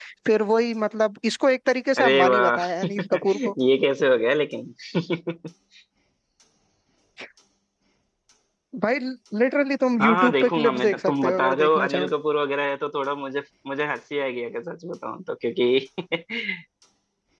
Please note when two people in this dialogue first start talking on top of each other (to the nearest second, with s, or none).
2 s